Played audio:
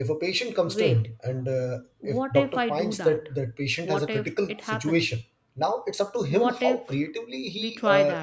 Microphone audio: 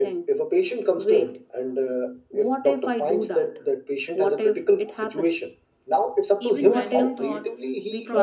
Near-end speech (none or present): present